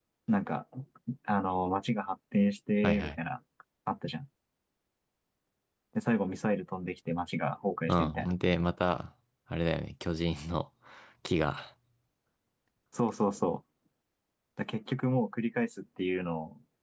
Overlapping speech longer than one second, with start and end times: none

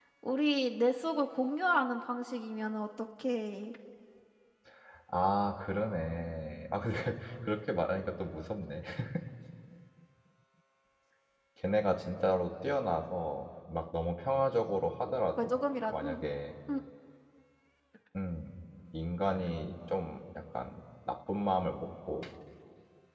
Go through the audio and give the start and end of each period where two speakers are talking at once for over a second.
none

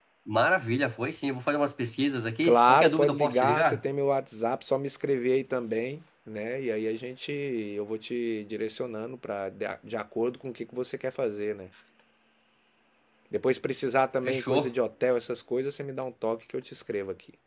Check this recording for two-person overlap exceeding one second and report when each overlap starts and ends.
2.4-3.8

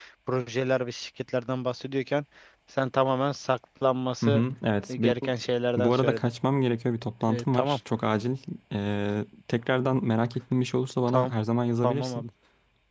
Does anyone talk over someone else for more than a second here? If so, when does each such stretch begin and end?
none

